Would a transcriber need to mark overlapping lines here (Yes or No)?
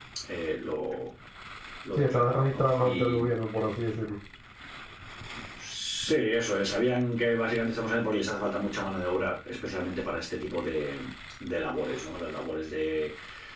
Yes